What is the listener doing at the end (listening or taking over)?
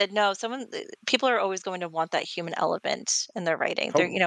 listening